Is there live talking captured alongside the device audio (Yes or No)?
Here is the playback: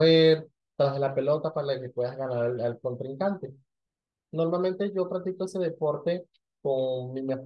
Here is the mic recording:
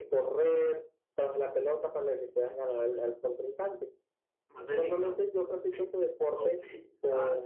Yes